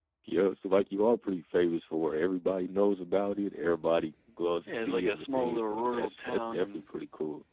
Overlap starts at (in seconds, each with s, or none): 4.7 s